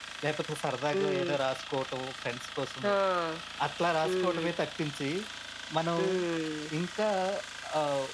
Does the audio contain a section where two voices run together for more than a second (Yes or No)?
No